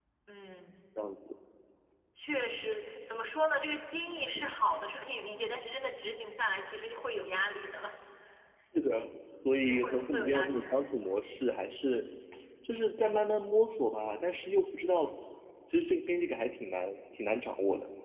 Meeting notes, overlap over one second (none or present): present